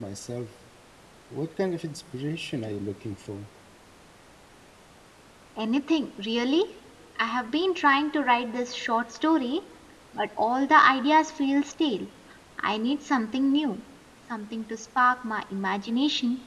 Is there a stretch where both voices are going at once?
No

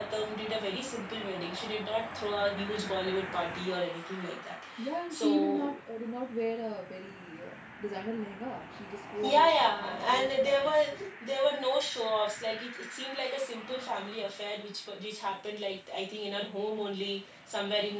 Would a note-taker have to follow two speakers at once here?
Yes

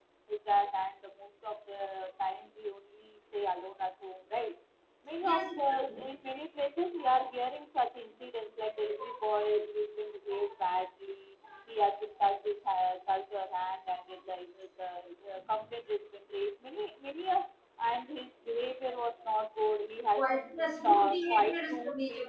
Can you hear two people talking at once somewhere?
Yes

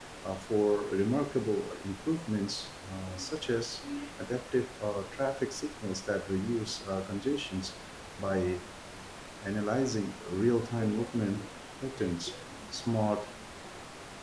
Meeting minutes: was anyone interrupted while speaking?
No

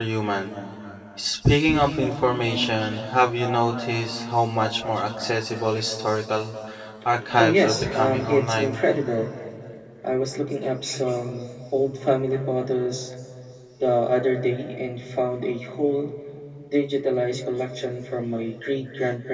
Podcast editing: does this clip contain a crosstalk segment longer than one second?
Yes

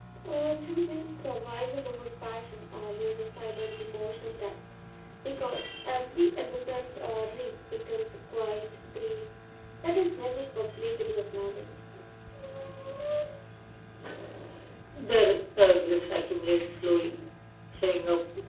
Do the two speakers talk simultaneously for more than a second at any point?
No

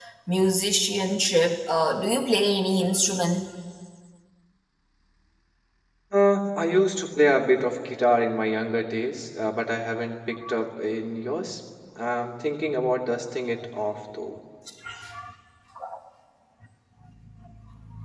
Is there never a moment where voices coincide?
Yes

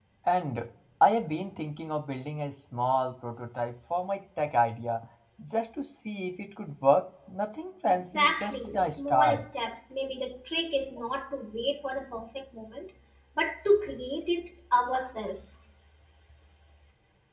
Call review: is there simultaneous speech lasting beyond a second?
Yes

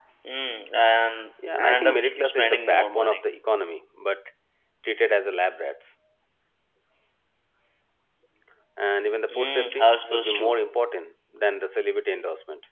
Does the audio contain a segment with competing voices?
Yes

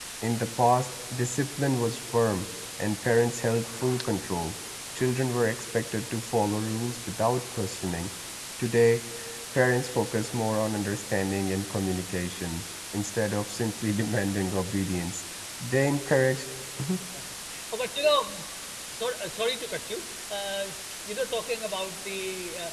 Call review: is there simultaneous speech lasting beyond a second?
No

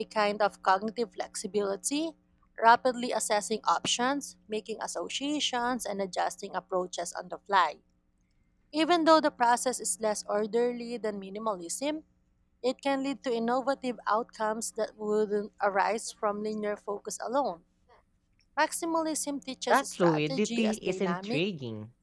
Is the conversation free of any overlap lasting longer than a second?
No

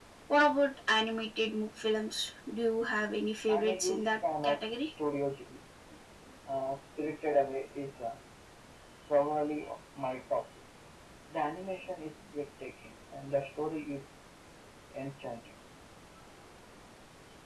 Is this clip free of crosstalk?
No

